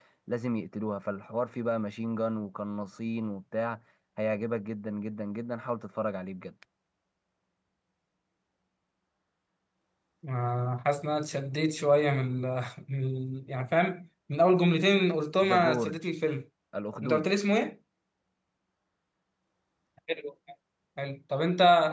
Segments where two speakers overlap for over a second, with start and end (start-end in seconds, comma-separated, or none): none